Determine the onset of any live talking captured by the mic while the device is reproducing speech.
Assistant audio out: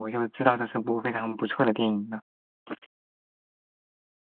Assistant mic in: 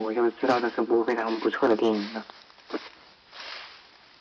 none

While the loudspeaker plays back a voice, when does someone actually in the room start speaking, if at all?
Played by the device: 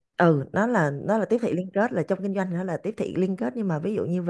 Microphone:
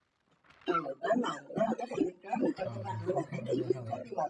3 s

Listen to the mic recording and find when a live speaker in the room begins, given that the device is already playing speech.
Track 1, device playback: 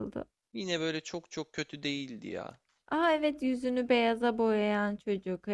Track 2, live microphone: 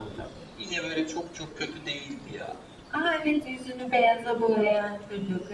none

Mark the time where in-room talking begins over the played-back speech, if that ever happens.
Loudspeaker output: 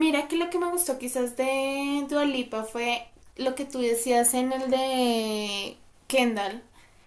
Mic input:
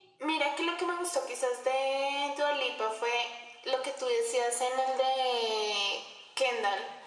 none

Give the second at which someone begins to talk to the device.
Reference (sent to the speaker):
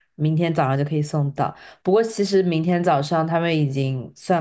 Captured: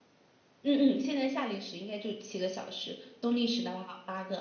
1 s

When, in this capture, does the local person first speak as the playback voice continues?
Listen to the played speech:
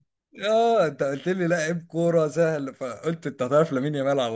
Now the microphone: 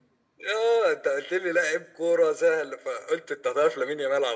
none

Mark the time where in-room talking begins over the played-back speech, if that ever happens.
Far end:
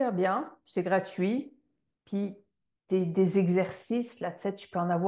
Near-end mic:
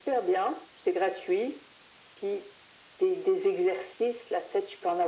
none

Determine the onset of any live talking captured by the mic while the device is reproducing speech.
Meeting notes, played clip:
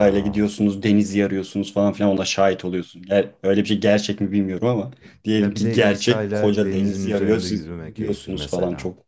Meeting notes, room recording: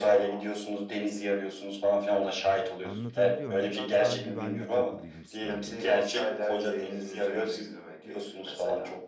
3 s

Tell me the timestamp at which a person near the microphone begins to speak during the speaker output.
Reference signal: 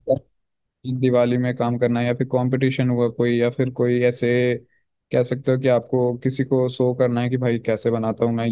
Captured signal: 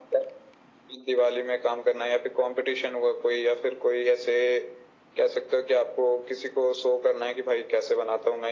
none

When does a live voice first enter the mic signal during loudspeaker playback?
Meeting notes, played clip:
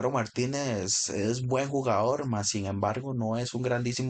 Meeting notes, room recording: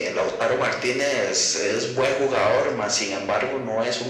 none

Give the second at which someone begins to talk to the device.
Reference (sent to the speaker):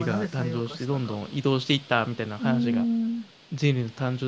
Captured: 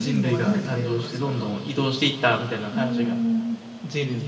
none

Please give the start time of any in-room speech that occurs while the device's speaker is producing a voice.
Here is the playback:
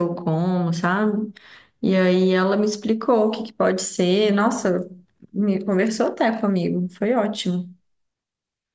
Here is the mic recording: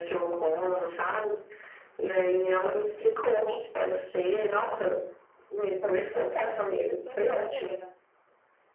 6 s

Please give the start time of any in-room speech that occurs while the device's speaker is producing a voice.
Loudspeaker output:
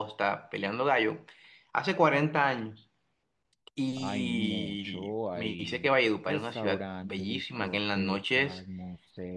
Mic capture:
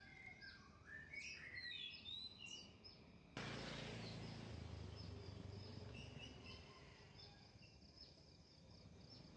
none

